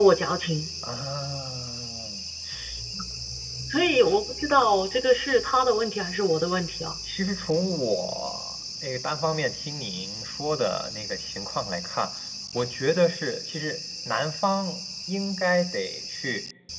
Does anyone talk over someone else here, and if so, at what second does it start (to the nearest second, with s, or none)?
none